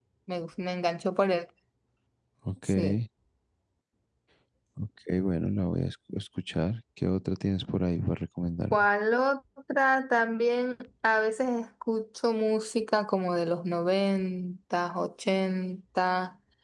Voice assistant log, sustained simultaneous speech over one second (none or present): none